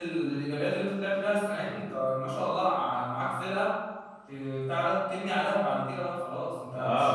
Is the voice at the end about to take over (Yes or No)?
Yes